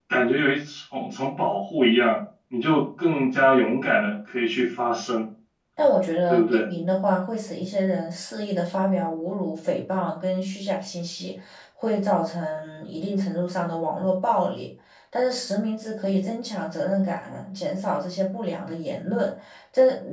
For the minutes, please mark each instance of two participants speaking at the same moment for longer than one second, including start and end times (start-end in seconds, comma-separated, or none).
none